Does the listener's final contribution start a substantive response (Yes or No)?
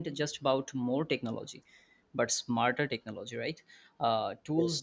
No